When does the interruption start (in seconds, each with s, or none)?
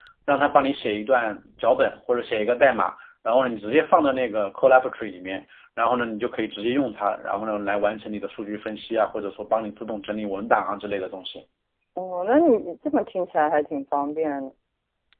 none